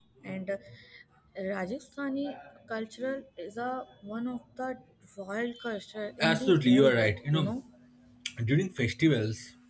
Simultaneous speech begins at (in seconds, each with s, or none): 6.2 s